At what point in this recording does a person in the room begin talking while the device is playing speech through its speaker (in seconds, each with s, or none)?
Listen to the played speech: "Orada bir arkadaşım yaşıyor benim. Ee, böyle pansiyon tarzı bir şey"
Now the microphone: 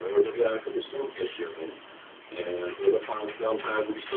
none